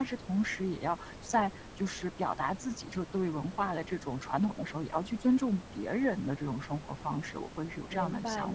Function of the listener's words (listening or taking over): taking over